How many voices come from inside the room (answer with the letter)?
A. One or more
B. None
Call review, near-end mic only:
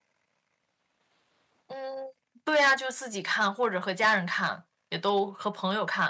A